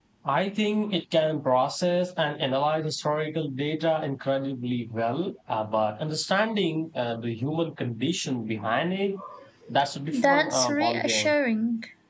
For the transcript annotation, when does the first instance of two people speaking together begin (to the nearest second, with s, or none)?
10 s